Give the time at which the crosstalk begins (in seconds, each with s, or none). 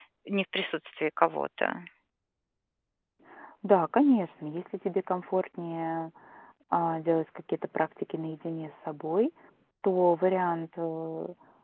none